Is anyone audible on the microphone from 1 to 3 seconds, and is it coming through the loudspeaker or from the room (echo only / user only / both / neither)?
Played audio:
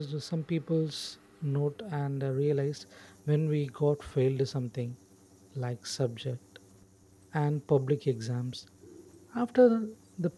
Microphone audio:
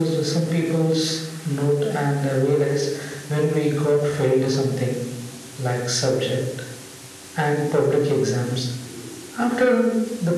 echo only